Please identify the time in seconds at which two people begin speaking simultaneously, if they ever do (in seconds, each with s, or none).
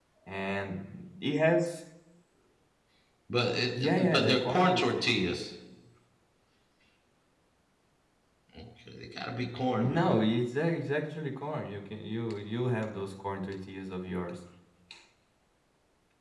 3.7 s